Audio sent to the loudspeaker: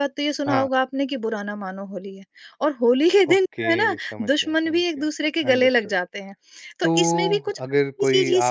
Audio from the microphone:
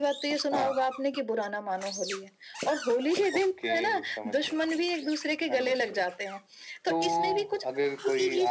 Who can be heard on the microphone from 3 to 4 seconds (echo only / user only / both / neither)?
echo only